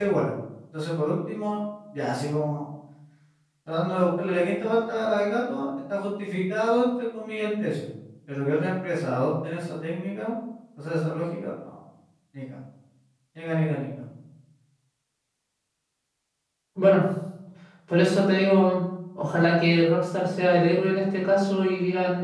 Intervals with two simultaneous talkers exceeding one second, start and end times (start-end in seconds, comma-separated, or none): none